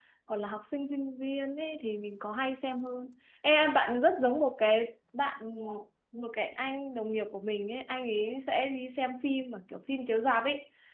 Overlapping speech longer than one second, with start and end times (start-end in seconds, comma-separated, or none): none